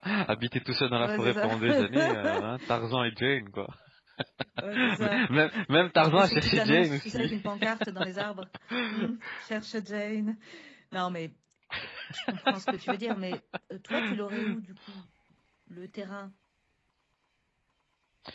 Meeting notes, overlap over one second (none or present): present